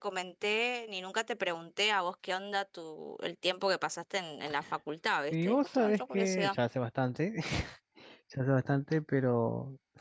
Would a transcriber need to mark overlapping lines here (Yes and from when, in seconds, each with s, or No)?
Yes, from 5.3 s